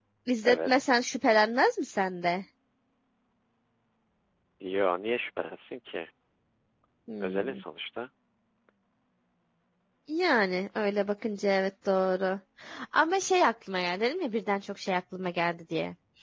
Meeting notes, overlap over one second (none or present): none